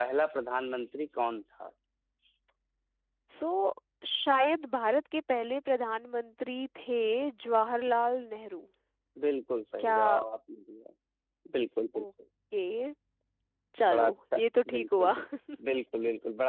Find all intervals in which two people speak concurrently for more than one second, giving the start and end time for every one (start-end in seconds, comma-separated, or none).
13.9-15.1